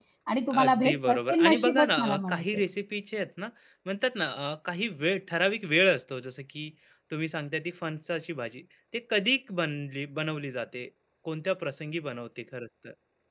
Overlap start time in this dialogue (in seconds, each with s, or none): 0.6 s